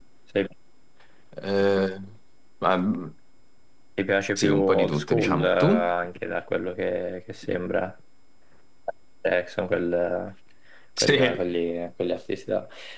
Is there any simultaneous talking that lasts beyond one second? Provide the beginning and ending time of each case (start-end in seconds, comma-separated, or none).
4.4-5.9